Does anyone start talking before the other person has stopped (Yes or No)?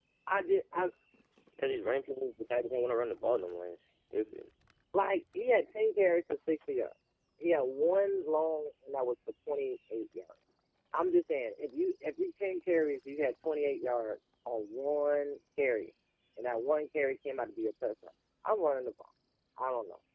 No